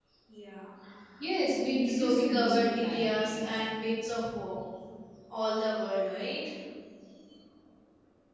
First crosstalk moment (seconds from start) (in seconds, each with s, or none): 1.9 s